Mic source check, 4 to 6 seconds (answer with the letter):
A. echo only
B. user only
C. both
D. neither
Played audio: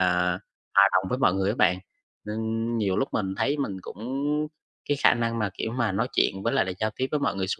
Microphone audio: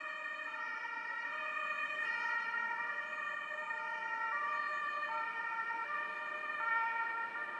D